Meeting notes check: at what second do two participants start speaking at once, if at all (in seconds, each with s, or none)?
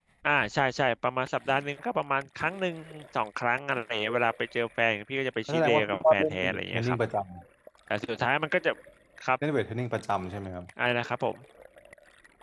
5.5 s